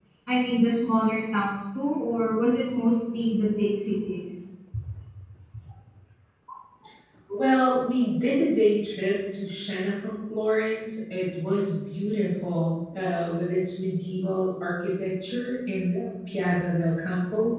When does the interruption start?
none

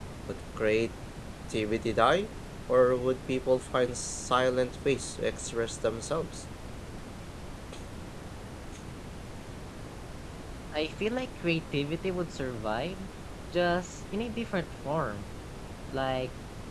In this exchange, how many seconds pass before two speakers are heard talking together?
none

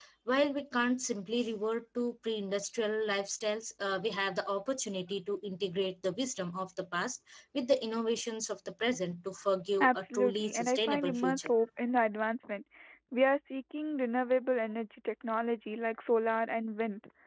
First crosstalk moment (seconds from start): 9.8 s

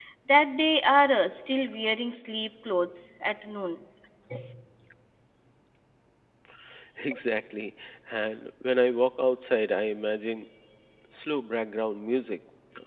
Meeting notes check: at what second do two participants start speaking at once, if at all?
none

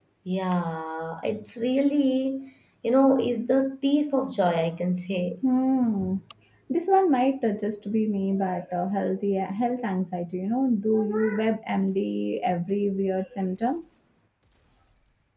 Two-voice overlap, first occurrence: none

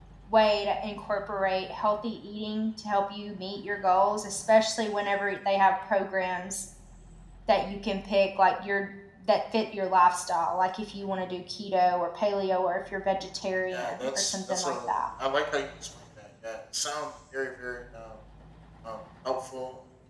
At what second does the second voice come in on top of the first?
13.7 s

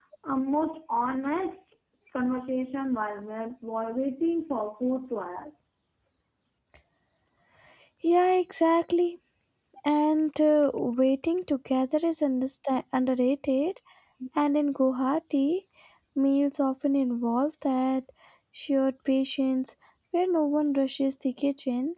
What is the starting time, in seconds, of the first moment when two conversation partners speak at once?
none

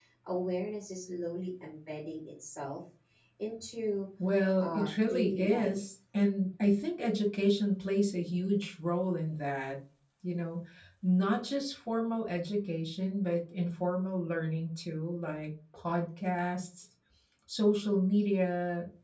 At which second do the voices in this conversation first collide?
4.6 s

